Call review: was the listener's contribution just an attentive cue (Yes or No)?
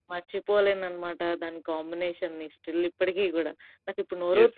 No